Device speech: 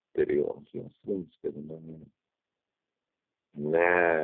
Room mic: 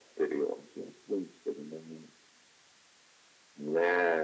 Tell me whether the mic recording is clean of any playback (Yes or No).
No